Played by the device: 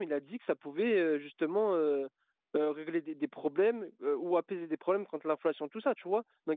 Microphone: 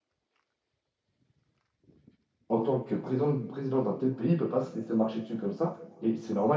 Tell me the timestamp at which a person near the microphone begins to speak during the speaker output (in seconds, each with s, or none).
2.5 s